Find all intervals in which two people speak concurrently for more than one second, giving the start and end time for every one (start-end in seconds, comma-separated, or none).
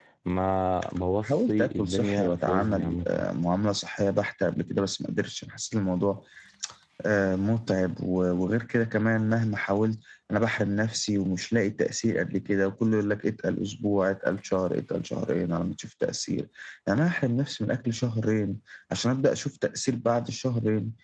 1.2-3.2